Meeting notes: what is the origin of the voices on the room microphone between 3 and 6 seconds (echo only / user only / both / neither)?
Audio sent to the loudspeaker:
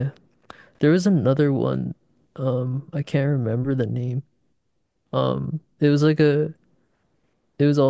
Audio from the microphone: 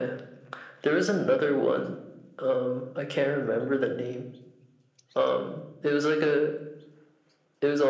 echo only